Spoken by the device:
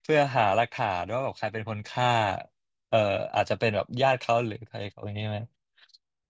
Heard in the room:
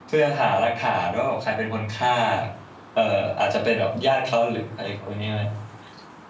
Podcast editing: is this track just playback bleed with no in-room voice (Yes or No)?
Yes